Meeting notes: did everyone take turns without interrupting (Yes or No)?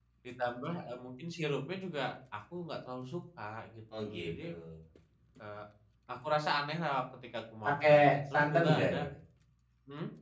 No